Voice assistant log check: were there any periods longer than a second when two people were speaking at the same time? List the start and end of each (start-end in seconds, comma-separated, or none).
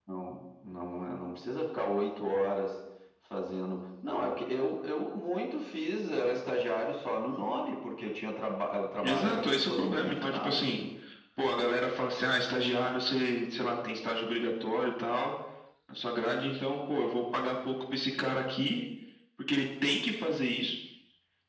9.0-10.8